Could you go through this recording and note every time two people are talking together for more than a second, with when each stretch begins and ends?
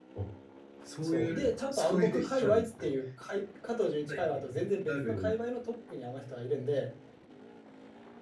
1.0-2.9

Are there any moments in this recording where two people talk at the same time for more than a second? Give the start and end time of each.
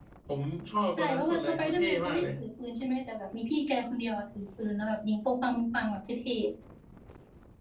1.0-2.2

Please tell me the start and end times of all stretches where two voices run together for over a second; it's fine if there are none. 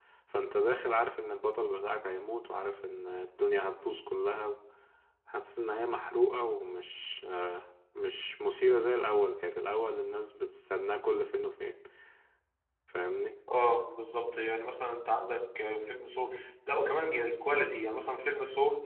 none

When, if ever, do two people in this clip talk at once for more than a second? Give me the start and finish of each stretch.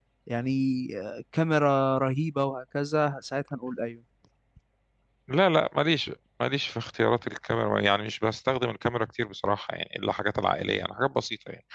none

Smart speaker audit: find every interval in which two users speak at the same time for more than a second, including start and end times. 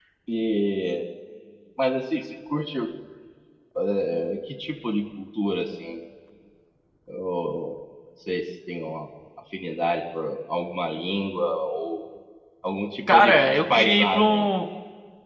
13.1-14.5

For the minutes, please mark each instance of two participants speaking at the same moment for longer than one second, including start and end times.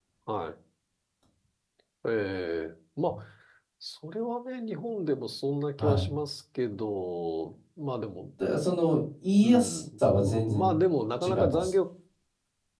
9.4-10.8

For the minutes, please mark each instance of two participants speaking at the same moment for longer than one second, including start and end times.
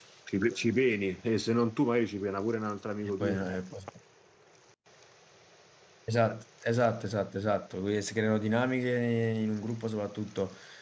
none

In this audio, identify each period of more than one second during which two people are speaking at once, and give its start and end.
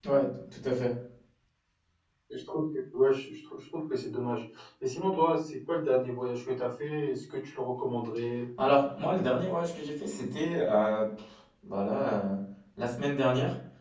none

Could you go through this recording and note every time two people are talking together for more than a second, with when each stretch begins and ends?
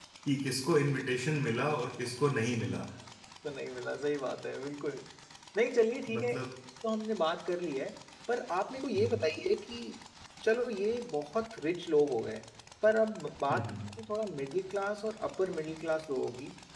none

